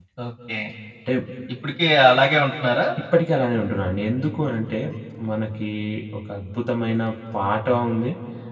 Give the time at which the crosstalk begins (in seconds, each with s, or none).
none